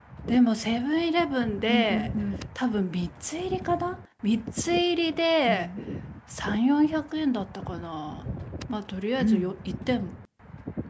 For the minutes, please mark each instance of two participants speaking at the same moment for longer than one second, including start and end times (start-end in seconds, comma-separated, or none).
none